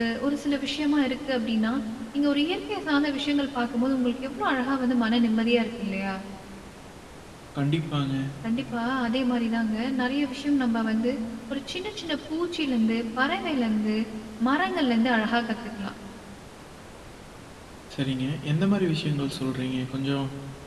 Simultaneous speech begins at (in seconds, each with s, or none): none